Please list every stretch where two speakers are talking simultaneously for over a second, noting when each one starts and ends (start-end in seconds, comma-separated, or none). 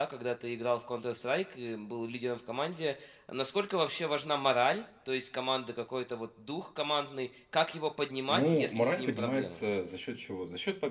8.3-9.6